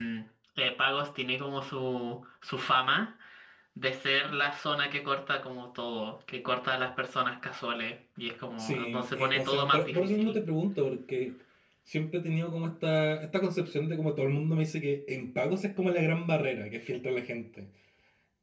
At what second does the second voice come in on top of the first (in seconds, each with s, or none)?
8.6 s